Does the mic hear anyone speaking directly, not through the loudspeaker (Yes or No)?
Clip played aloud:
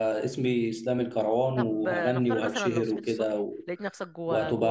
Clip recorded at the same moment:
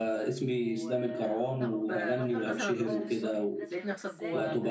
Yes